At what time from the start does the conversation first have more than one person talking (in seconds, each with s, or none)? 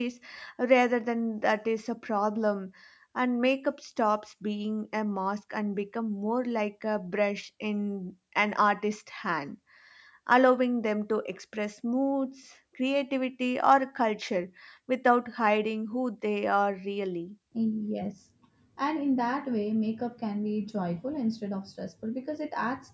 none